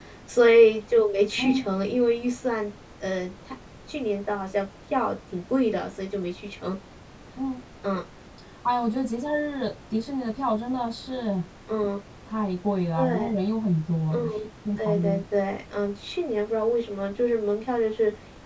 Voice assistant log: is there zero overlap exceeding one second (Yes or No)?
Yes